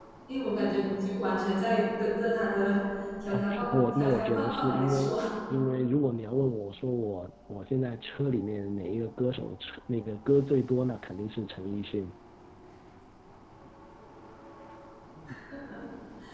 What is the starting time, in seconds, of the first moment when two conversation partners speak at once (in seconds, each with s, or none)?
3.3 s